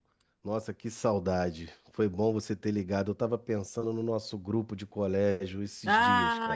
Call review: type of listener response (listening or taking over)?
taking over